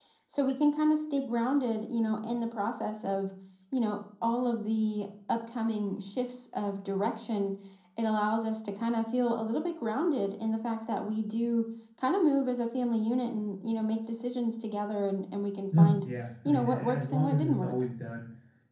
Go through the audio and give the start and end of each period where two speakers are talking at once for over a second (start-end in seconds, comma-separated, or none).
16.4-17.8